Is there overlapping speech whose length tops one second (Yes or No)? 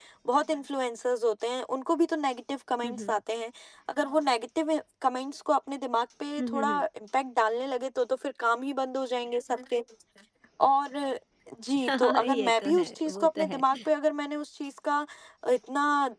Yes